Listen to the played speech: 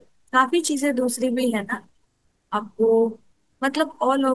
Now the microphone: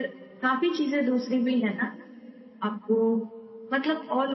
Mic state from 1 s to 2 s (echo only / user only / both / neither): echo only